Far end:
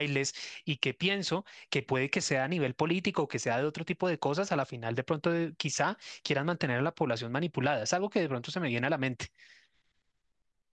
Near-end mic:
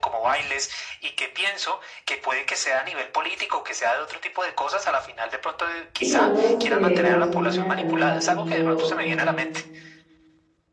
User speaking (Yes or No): Yes